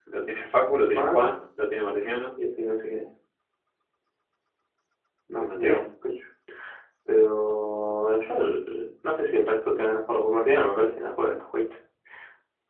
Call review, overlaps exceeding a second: none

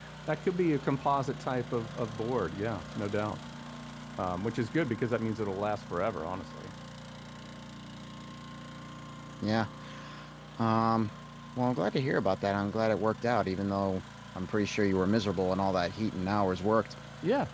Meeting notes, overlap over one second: none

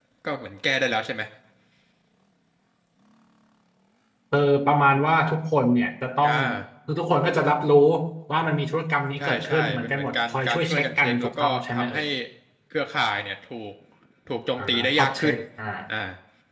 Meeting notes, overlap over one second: present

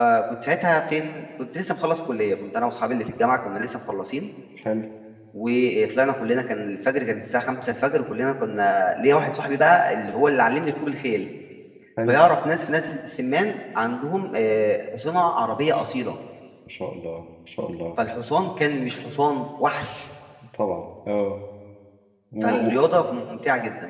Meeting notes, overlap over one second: none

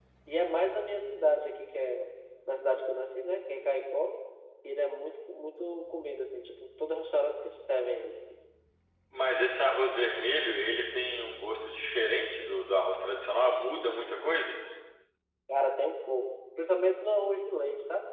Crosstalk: none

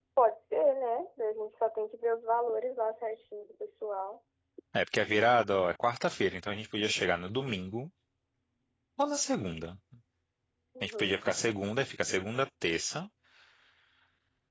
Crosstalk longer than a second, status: none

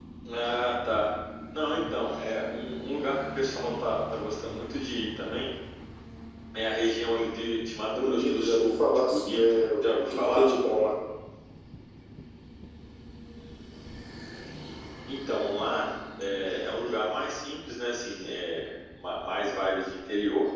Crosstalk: present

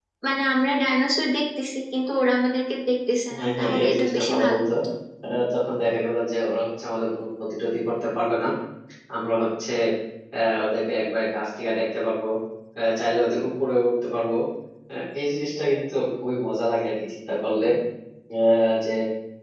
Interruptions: present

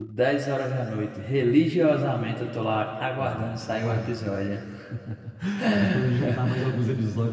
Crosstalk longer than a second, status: present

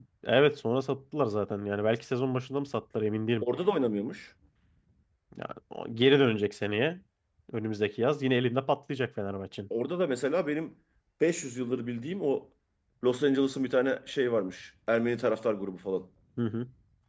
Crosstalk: none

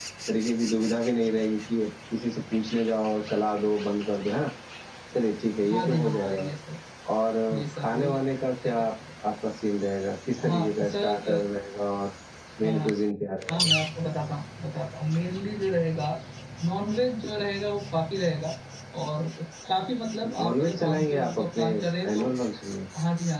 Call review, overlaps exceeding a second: present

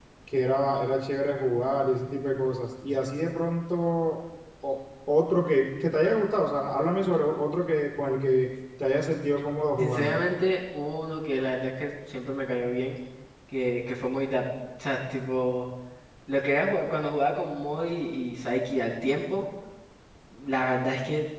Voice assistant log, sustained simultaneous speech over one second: none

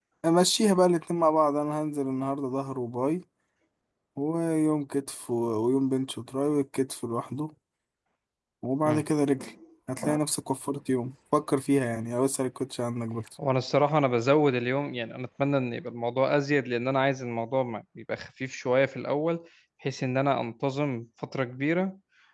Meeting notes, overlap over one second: none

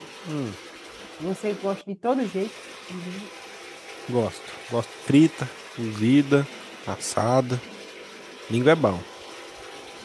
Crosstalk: none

